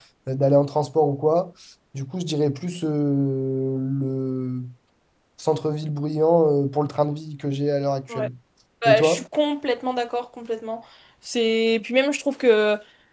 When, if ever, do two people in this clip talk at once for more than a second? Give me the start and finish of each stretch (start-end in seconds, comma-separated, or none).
none